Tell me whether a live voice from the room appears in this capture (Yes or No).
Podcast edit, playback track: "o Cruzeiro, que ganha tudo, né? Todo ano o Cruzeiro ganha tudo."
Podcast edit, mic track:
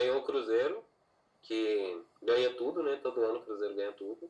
No